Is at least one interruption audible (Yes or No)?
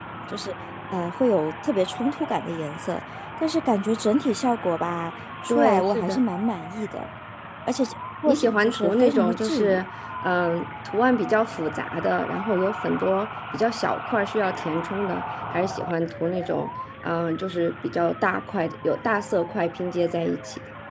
Yes